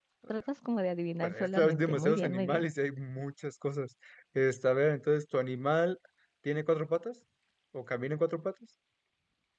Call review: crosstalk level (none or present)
present